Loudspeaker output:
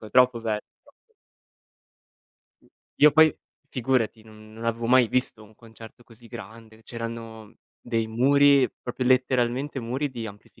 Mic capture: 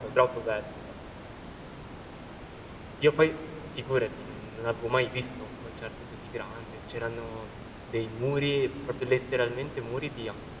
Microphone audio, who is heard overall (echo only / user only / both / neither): echo only